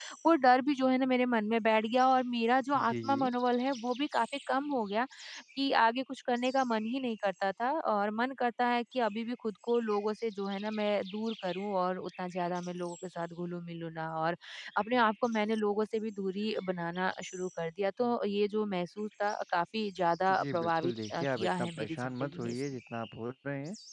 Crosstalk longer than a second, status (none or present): present